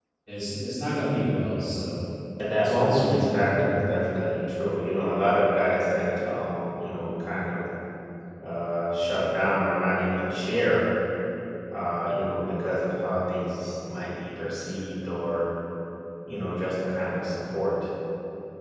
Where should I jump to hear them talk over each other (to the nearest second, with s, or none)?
3 s